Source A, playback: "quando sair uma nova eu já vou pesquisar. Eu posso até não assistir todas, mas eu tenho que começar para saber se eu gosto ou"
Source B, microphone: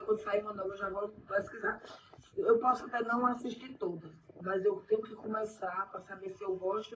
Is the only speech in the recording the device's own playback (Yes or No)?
Yes